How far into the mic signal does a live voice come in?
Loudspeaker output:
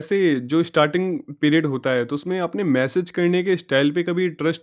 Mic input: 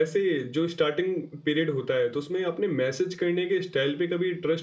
none

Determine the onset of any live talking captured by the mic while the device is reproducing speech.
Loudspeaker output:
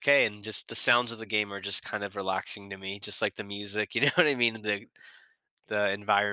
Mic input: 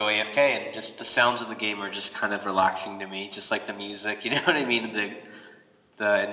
none

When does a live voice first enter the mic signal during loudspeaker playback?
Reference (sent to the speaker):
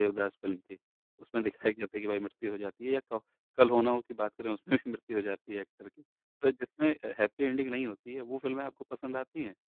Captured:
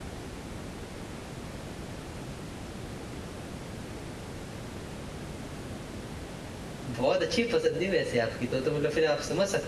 6.9 s

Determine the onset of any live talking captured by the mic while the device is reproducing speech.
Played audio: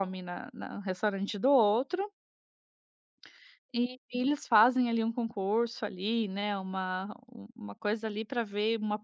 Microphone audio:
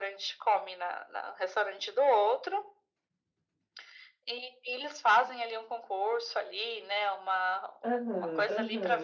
7.9 s

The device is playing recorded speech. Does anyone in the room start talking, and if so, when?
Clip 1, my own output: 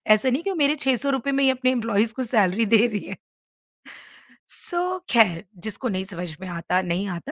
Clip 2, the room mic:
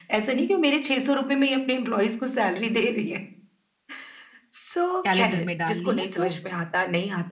5.0 s

